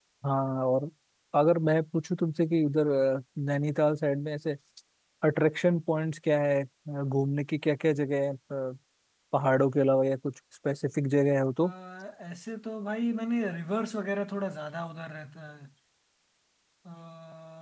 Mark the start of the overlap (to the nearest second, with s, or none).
none